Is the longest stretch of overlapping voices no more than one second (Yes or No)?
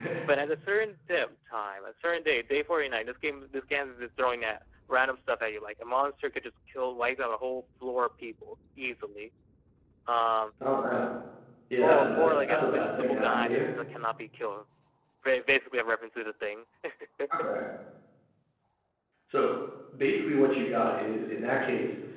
No